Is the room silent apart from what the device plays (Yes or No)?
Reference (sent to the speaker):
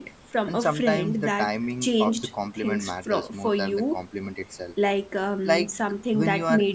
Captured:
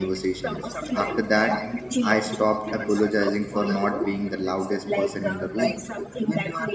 No